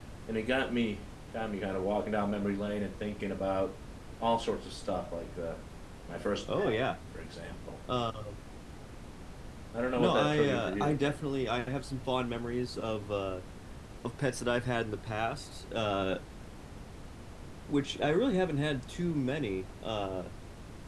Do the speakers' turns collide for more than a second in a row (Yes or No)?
Yes